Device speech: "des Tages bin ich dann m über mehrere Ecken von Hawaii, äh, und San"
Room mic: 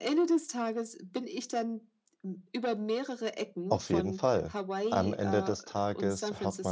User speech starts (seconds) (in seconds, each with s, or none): 3.7 s